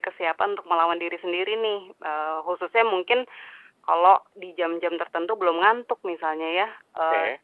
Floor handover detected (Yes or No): No